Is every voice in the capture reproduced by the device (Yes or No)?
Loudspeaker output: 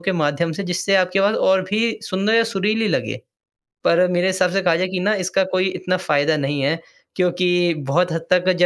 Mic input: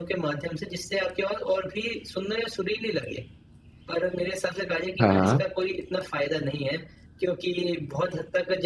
No